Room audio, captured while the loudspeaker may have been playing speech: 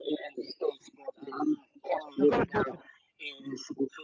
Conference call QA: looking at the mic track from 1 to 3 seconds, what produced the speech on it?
both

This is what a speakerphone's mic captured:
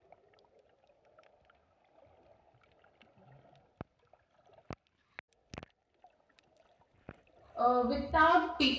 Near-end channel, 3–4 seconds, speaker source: neither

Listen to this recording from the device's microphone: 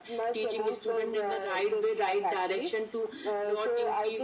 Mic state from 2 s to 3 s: echo only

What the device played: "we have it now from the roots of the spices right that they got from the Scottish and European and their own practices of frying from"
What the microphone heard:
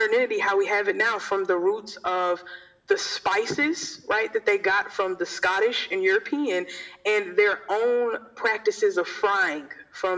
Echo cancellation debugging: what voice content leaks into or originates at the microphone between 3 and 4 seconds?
echo only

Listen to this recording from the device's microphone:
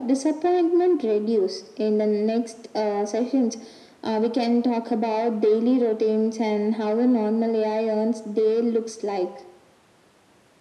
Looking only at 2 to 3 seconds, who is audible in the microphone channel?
echo only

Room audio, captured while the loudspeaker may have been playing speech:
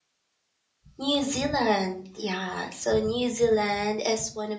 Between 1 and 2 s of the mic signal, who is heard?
user only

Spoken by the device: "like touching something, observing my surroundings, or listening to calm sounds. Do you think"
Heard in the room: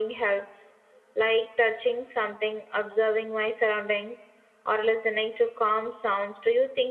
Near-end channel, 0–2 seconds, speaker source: echo only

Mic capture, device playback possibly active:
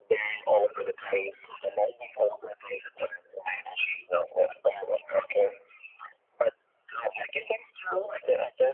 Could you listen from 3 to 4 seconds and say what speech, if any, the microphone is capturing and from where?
echo only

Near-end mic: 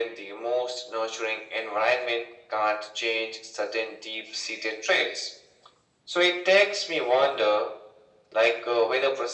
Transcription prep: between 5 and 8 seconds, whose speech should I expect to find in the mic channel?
echo only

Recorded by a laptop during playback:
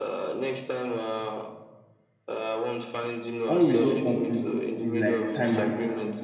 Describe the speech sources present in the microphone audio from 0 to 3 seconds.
echo only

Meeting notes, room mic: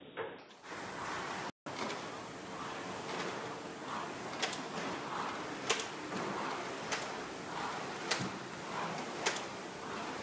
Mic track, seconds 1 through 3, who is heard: neither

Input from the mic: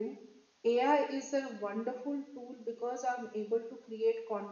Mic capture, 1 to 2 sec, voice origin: echo only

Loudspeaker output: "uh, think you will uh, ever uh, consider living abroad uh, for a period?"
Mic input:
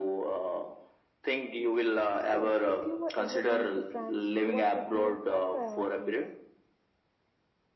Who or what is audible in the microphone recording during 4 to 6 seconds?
both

